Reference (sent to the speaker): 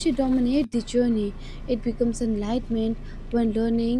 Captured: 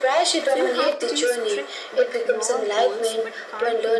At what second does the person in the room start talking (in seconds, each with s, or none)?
0.5 s